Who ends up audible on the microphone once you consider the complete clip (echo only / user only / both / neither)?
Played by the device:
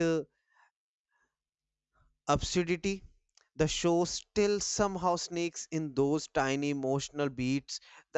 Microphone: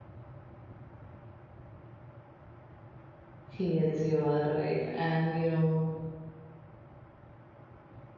user only